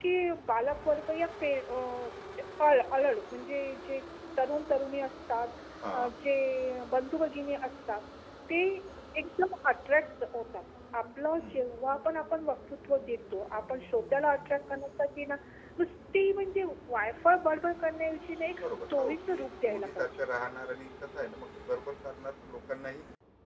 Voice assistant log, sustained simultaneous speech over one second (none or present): present